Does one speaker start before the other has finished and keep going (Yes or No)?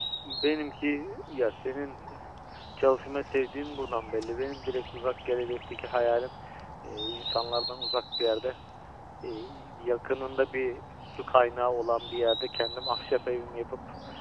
No